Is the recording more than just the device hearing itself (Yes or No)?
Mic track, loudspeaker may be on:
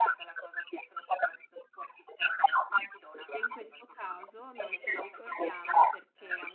Yes